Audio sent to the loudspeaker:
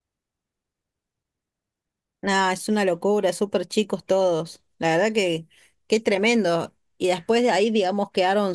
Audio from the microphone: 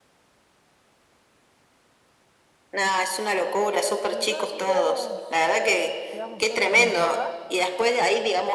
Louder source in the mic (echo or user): echo